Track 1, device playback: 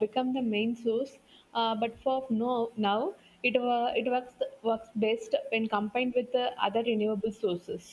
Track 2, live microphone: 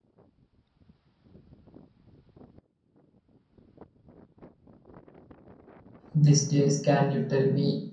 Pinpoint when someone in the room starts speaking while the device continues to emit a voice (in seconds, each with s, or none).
6.1 s